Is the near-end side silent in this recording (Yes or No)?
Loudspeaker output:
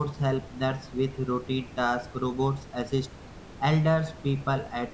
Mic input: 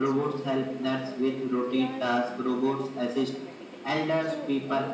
No